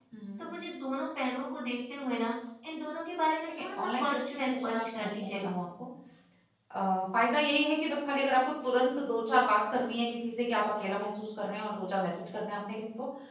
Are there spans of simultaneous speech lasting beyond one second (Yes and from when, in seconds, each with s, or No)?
Yes, from 3.5 s